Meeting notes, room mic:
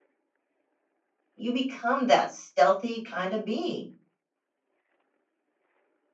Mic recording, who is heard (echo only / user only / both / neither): user only